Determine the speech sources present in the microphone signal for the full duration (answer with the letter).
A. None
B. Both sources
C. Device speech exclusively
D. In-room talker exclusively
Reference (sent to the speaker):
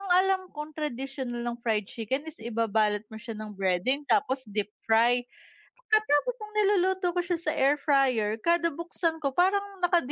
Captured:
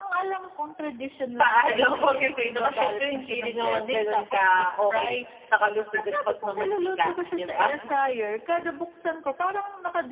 B